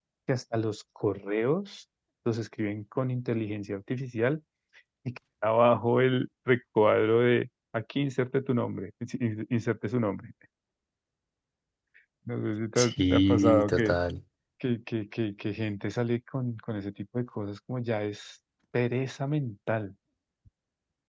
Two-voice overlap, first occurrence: 12.8 s

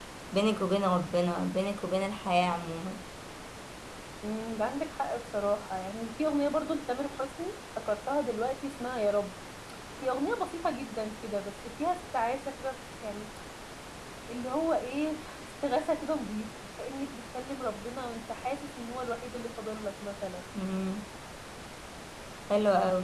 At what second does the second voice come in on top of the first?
none

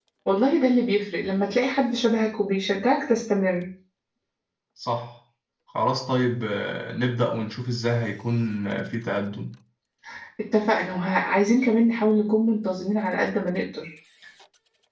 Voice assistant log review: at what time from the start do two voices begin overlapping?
none

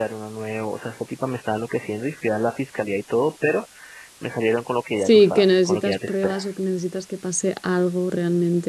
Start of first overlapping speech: 5.0 s

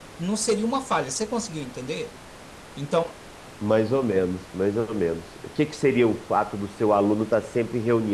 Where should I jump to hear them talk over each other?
none

